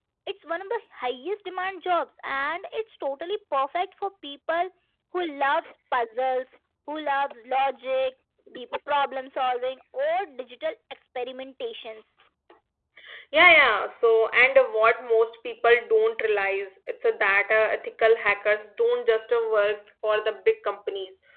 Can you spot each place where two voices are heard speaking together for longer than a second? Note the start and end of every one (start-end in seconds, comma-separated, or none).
none